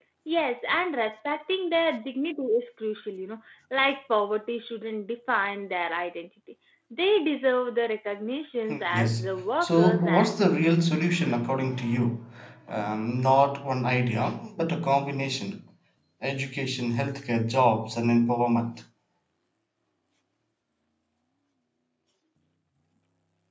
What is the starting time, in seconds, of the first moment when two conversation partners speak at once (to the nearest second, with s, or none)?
9 s